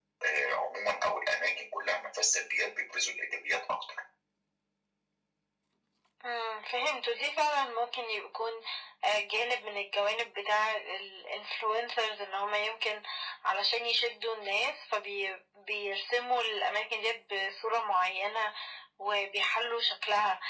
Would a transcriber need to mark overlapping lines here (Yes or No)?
No